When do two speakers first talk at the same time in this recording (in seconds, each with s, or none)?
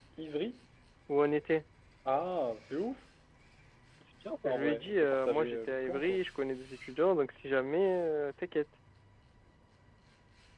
4.4 s